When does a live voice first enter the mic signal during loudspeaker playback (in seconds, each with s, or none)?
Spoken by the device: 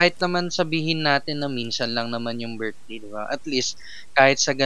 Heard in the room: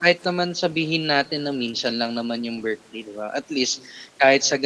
none